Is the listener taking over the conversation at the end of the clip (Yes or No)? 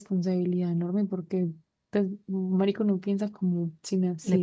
Yes